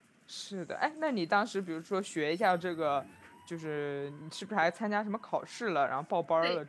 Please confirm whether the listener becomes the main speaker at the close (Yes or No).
Yes